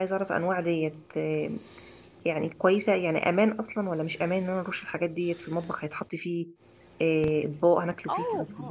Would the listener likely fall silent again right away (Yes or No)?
No